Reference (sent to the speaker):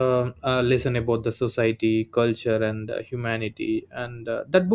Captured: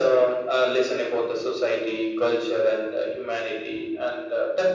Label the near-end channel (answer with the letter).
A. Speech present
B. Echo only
B